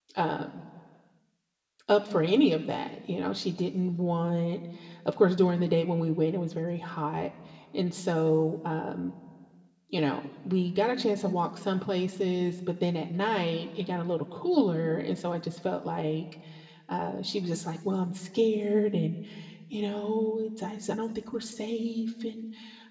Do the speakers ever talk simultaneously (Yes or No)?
No